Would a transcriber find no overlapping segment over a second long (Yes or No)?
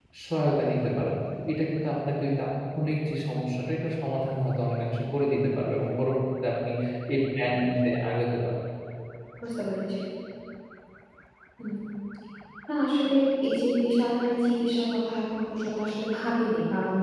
Yes